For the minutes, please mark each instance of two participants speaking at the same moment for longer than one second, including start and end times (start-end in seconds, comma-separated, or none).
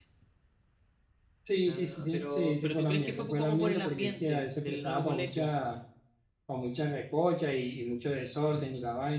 1.7-5.5